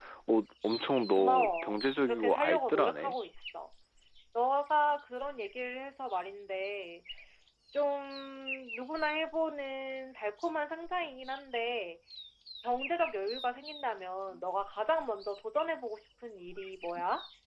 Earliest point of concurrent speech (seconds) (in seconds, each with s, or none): 1.2 s